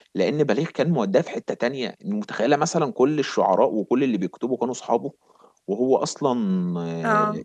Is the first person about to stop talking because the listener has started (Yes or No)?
No